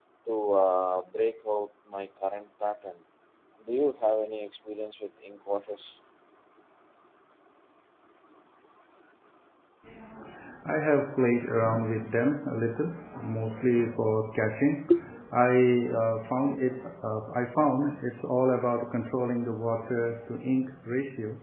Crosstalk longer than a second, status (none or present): none